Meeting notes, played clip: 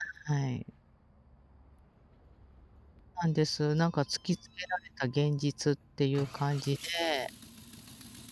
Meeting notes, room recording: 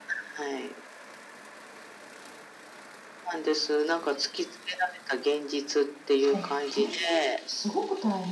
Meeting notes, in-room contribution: present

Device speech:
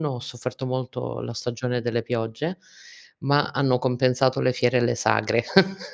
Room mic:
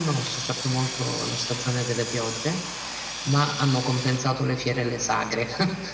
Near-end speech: none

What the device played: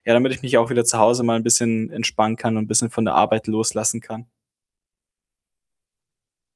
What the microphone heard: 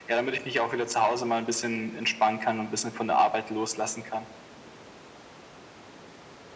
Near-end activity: none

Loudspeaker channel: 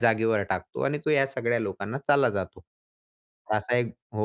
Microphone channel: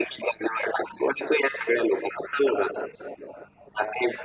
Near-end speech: none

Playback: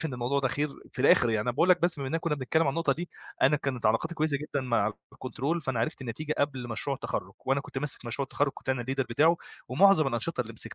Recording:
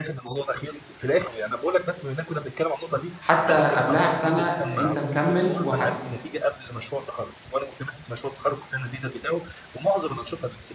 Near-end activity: present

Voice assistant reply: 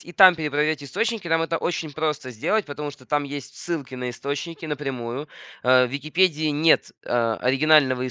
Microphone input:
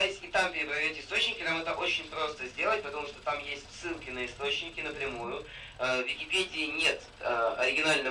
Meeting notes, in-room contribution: none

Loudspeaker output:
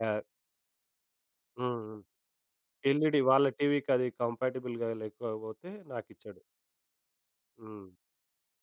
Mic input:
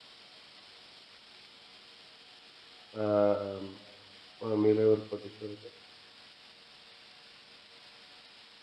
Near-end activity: present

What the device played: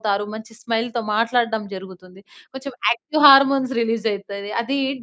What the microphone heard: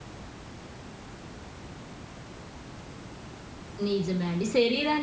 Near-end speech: present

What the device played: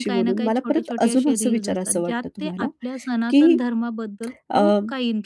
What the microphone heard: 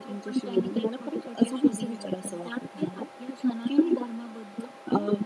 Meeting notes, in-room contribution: none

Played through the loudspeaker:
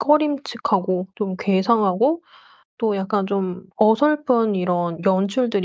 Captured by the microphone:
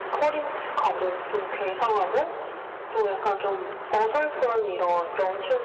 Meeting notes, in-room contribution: none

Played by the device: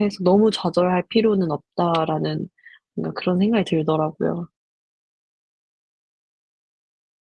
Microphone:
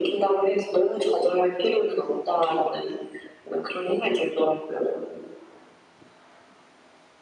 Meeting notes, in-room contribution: none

